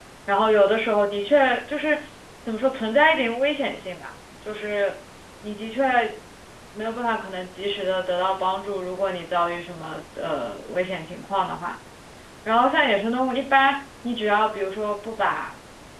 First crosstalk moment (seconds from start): none

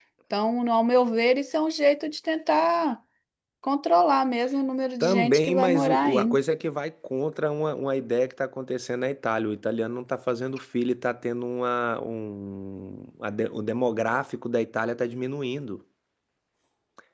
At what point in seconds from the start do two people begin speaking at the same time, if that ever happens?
5.0 s

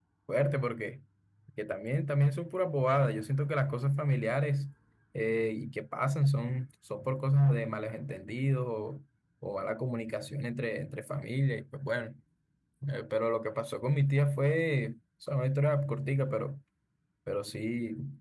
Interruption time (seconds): none

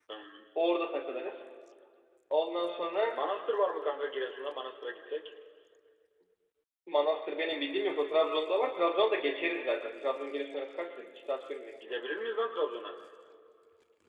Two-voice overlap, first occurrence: none

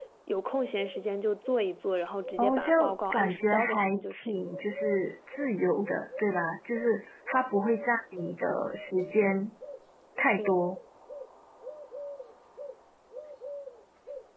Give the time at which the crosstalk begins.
2.4 s

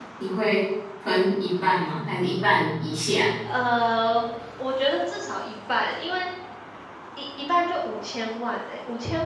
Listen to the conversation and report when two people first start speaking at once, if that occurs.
none

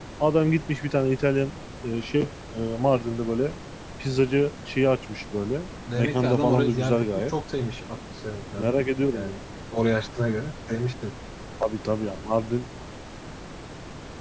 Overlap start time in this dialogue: 5.8 s

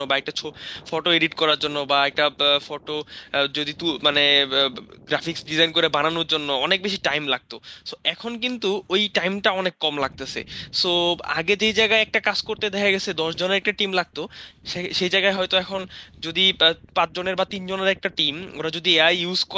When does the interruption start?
none

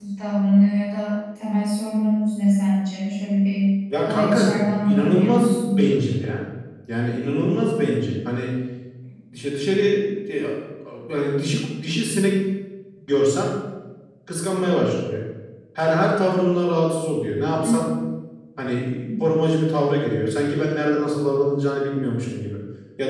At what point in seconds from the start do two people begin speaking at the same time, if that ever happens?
3.9 s

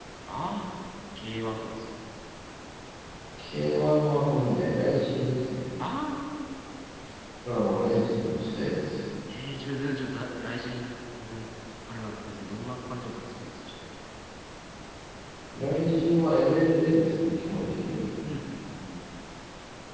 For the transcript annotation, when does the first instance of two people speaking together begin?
none

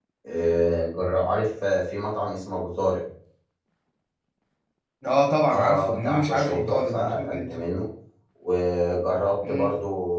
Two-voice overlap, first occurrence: 5.5 s

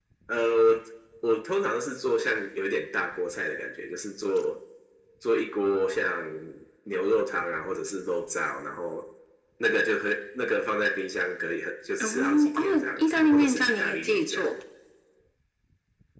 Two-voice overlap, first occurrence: 12.0 s

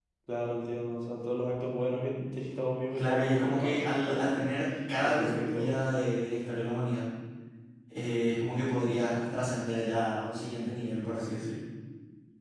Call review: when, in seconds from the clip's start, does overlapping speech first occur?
3.0 s

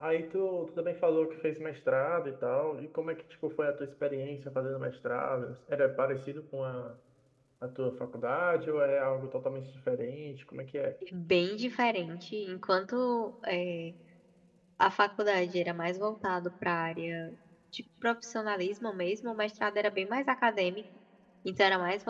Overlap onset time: none

